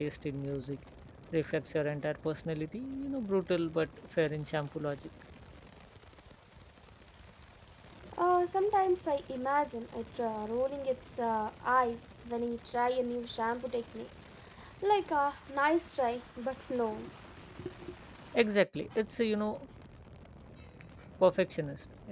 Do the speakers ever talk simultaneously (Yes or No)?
No